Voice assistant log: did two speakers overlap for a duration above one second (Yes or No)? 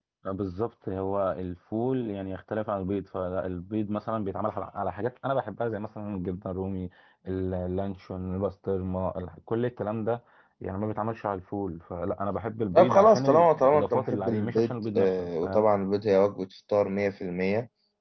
Yes